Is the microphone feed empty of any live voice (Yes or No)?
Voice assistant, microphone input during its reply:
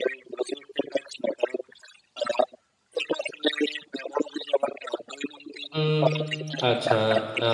No